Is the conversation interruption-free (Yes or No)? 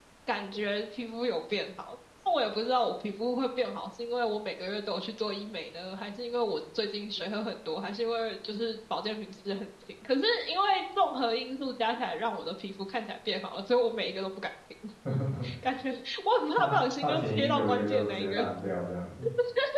No